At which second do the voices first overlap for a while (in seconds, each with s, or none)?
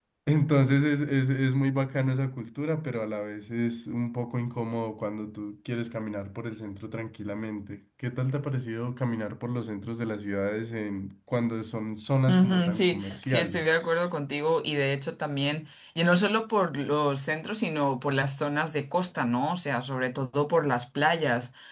12.3 s